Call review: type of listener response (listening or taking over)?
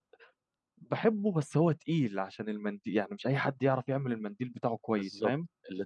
taking over